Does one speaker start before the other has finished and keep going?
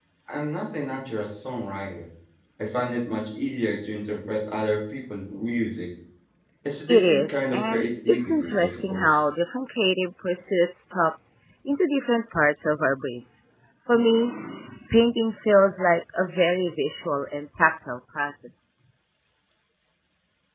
Yes, from 6.9 s

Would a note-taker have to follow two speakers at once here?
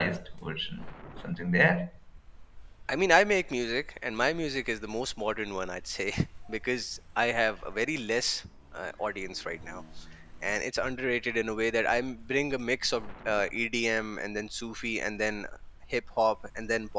No

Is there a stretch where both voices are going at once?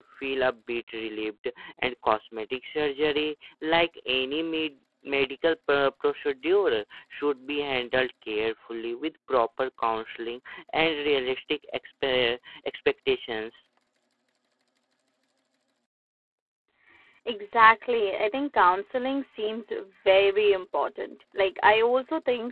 No

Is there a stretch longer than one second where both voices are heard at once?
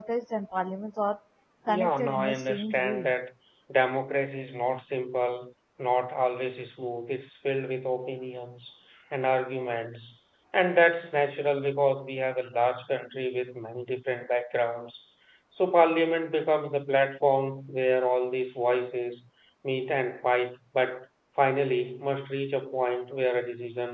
Yes, from 1.7 s

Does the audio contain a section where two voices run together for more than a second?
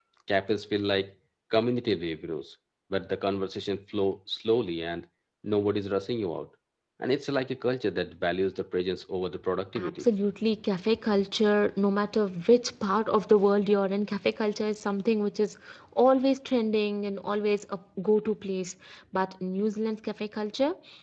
No

